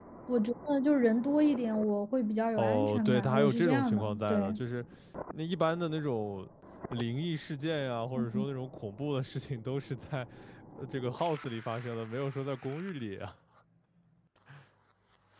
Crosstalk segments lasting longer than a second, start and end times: 2.6-4.6

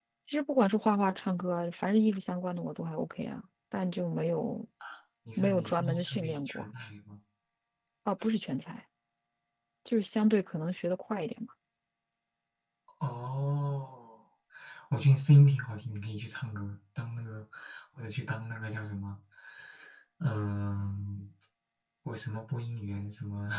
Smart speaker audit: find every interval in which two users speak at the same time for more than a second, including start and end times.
5.4-6.7

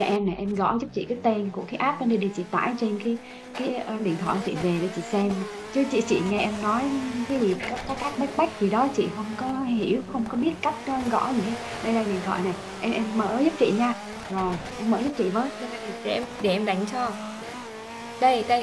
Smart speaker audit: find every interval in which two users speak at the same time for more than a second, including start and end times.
none

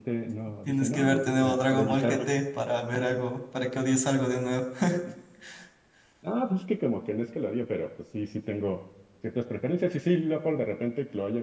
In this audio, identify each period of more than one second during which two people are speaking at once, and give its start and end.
0.7-2.2

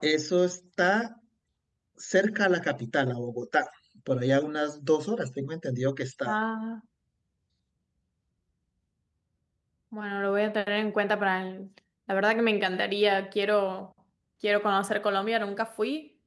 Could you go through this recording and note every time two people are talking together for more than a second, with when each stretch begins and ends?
none

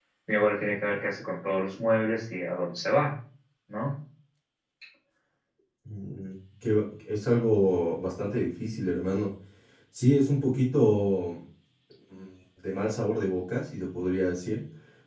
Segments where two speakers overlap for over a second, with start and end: none

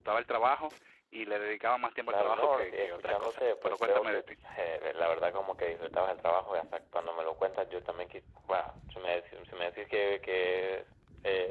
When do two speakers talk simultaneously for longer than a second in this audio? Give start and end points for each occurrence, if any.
2.1-4.3

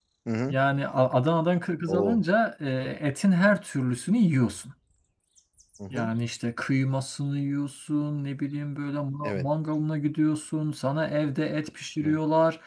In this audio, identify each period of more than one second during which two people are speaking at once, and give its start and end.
none

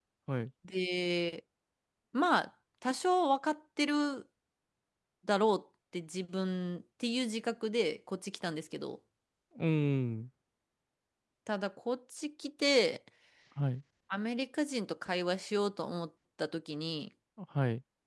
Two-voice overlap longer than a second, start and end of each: none

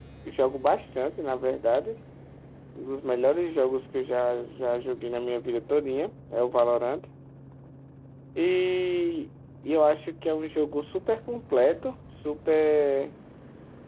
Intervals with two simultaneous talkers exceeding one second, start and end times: none

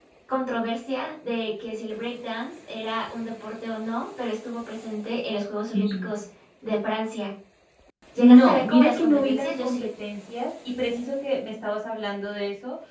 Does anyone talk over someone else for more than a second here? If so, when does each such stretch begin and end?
8.2-9.8

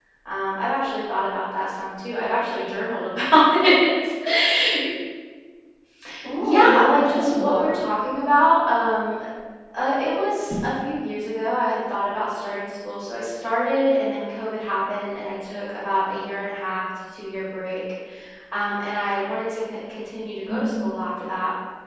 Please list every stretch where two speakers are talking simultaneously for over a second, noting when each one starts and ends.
6.4-7.7

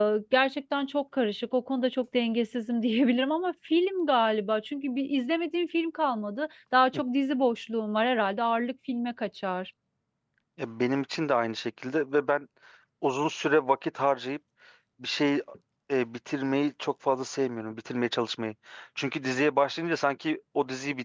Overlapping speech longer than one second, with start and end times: none

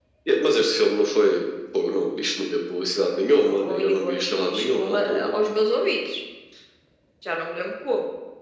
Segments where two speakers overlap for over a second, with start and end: 3.4-5.3

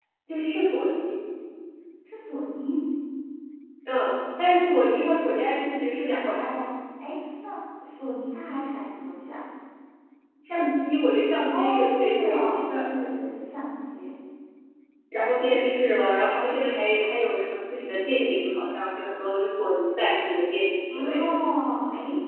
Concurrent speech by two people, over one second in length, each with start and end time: 11.5-12.9

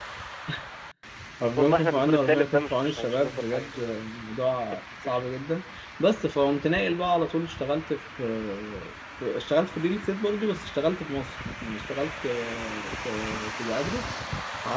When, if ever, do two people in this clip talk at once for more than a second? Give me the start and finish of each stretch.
1.6-4.0

